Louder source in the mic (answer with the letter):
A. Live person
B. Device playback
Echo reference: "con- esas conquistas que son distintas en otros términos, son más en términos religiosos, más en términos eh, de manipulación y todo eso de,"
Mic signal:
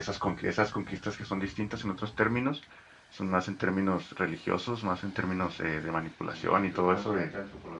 B